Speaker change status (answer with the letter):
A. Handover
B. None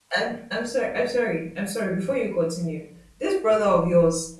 B